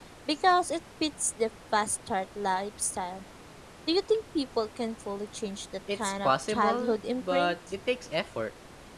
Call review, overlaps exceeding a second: present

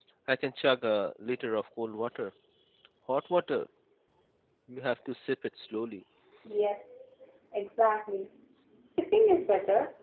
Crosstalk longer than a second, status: none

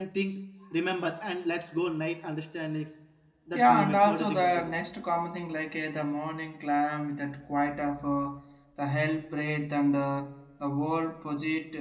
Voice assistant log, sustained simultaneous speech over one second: present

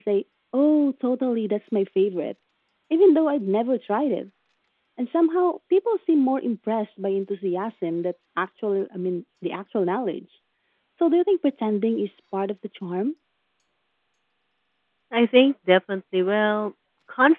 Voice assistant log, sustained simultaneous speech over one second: none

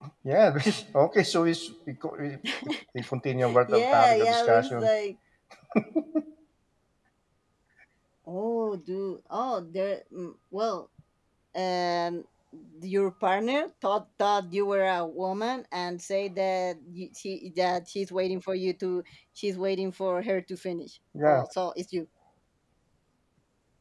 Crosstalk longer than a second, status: present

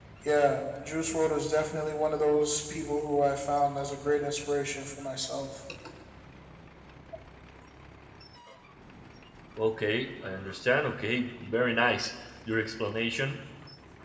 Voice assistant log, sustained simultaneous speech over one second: none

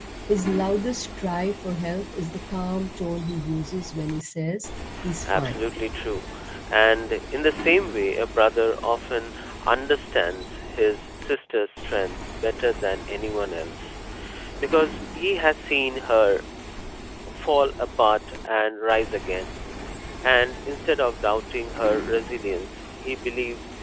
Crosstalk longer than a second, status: none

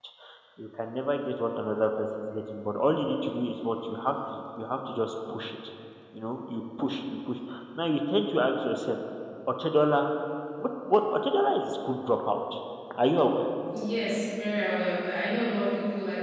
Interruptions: none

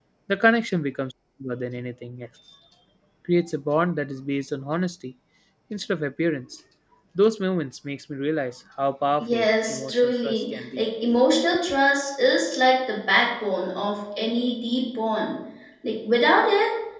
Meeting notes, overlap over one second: present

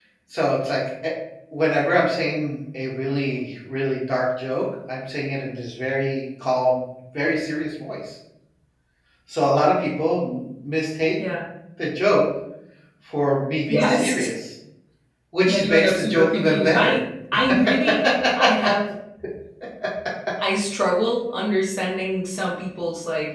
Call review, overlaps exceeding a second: present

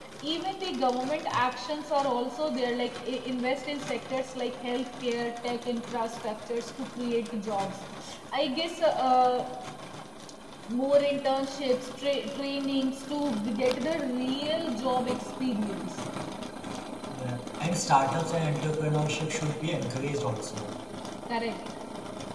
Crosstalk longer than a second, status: none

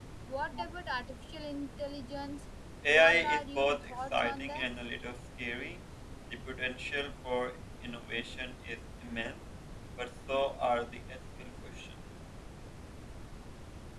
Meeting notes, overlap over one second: present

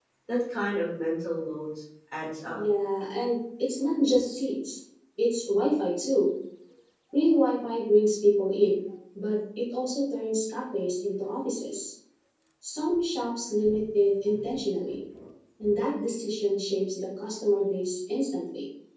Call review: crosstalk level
none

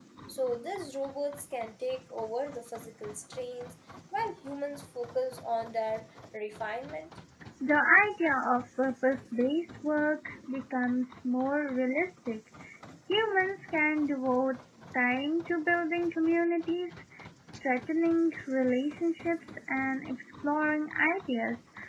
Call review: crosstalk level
none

